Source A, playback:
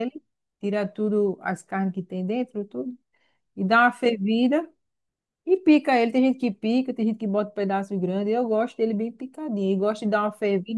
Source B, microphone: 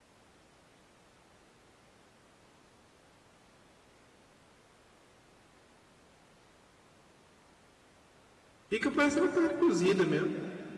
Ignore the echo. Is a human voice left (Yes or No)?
Yes